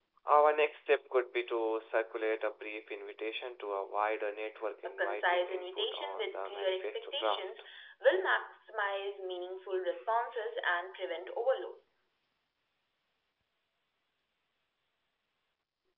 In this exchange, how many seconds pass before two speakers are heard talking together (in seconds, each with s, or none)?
4.8 s